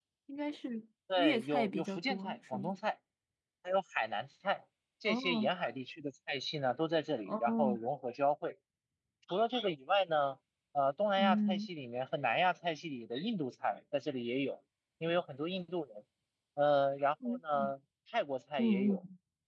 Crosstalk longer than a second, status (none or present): present